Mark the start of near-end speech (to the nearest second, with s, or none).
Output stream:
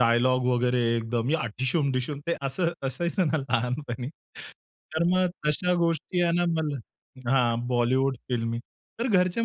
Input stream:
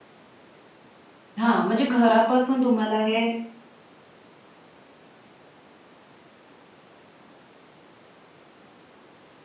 1 s